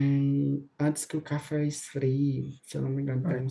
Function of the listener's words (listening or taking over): taking over